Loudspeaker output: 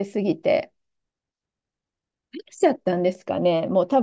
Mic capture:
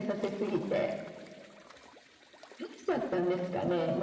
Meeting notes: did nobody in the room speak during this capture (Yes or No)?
Yes